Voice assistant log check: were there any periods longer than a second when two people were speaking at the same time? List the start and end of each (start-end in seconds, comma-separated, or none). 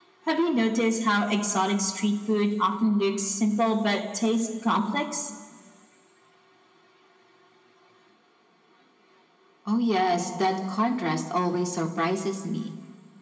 none